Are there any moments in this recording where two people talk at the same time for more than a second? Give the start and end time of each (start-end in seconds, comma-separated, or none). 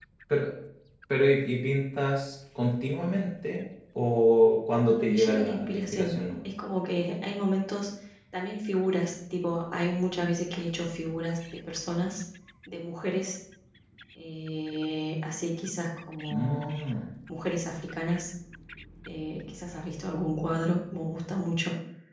4.8-6.2